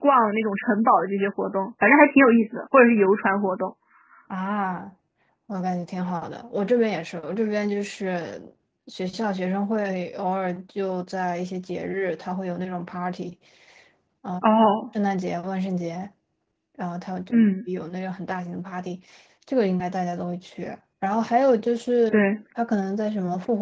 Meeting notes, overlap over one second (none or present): none